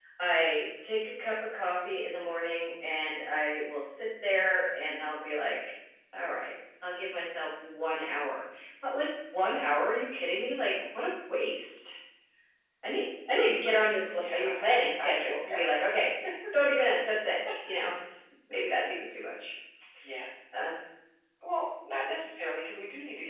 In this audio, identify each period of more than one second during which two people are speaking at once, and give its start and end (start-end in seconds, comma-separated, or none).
14.1-15.6